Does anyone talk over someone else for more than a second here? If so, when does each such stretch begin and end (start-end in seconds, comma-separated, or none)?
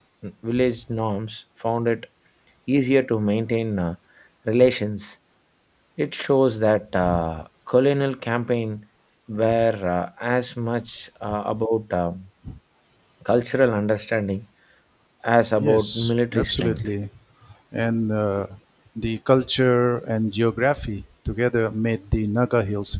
15.6-16.9